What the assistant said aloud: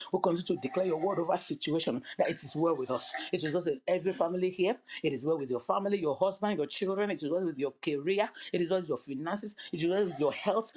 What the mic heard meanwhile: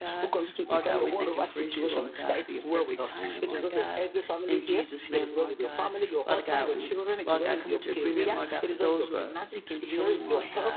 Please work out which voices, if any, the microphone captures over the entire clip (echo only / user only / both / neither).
both